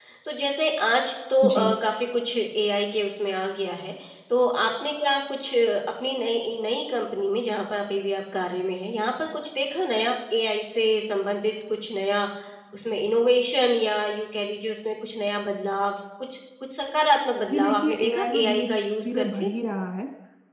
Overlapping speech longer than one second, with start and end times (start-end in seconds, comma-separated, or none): 17.5-19.5